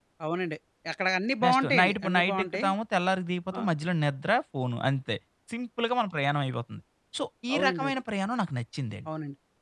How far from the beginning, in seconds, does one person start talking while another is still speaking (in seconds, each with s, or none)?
1.4 s